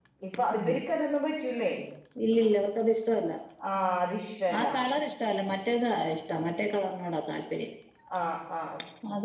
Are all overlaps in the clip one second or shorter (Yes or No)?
Yes